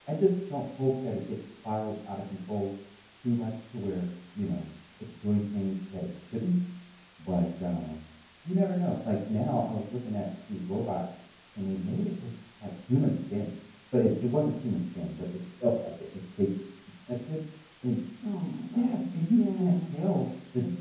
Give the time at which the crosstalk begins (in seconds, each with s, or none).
18.7 s